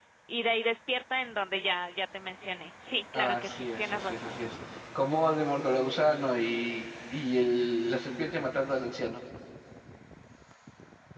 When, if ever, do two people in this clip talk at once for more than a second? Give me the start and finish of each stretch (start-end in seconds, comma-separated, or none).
3.1-4.4